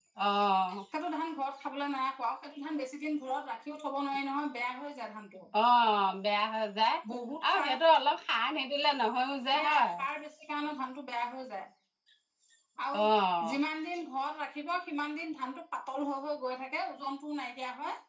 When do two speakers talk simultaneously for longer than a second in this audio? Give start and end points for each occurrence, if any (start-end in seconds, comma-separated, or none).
none